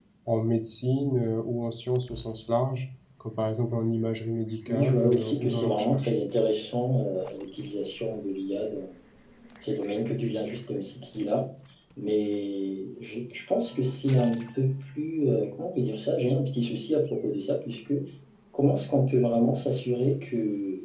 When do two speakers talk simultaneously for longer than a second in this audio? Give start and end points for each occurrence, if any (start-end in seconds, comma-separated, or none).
4.7-6.1